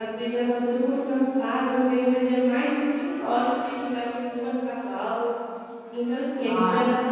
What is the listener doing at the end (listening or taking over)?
taking over